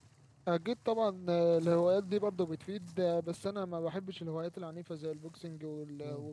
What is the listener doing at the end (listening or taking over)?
listening